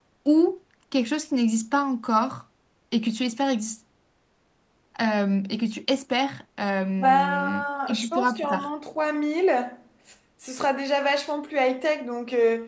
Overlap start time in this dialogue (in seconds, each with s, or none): 7.0 s